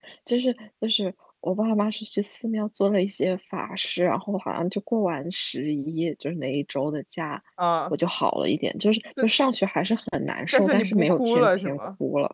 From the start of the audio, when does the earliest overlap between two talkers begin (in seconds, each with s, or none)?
10.5 s